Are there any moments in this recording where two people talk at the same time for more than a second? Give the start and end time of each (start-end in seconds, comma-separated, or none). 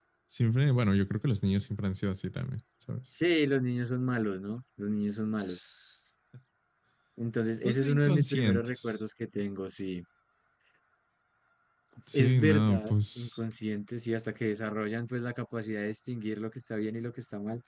7.6-8.9, 12.1-13.4